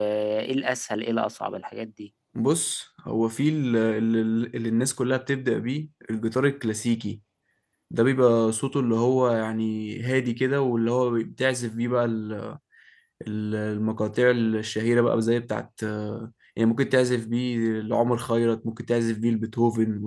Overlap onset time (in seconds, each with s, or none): none